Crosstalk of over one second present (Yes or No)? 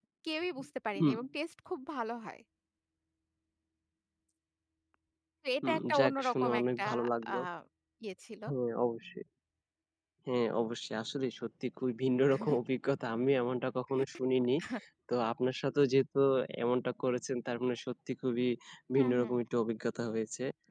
Yes